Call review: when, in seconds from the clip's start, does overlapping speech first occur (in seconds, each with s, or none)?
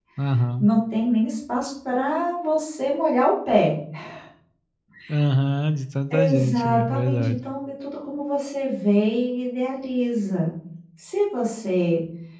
6.1 s